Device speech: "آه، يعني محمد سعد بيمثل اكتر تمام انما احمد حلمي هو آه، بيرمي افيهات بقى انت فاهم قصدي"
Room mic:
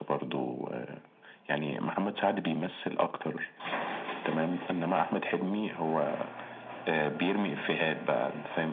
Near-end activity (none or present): none